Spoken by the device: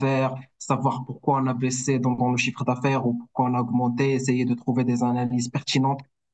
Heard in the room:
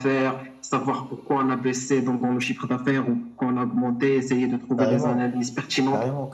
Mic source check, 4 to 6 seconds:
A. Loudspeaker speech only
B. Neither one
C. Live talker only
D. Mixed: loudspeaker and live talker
D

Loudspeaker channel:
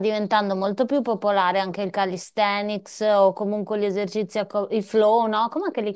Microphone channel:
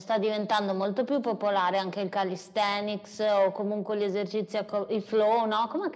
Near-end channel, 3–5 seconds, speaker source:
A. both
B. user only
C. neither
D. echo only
D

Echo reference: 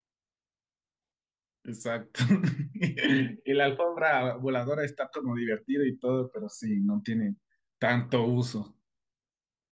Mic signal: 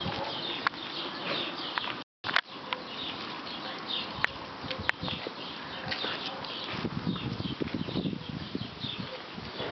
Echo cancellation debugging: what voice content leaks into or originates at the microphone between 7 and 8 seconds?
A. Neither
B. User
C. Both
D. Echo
A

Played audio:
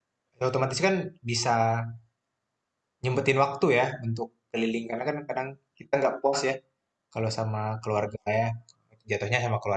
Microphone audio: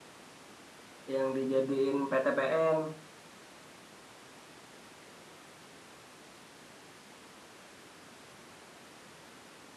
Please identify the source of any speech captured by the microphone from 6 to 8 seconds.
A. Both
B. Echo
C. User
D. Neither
D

